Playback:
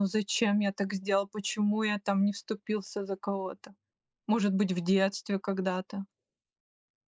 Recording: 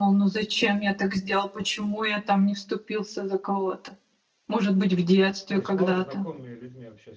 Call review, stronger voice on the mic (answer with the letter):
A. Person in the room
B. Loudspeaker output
B